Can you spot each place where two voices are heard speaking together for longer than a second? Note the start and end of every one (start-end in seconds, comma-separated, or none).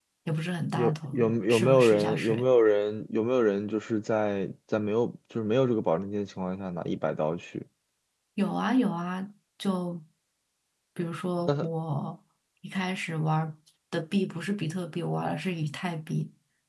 0.8-2.5